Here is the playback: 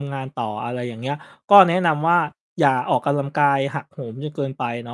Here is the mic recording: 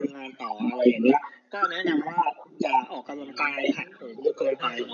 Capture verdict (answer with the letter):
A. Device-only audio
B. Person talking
B